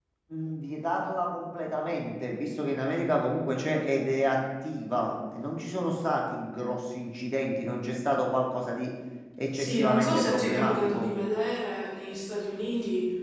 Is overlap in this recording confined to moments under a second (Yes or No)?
No